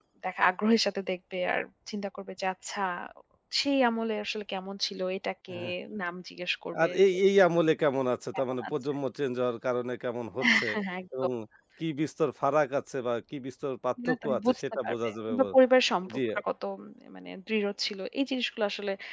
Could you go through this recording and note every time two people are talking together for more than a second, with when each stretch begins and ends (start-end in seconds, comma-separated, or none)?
14.1-15.4